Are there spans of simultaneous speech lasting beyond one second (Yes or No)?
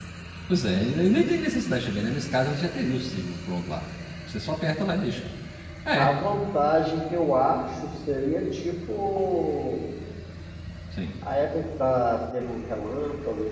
No